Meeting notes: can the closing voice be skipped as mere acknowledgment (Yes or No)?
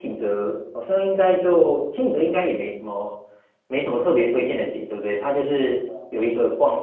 Yes